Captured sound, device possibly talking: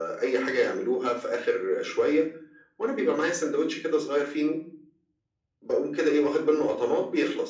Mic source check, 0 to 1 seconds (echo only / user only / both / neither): echo only